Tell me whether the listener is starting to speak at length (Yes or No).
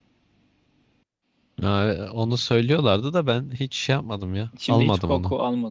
Yes